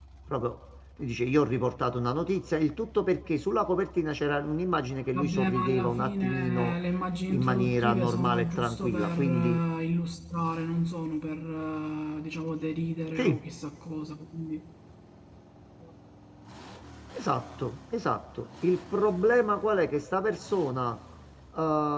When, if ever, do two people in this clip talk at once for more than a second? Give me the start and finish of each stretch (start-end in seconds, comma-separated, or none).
5.1-6.7, 7.3-9.6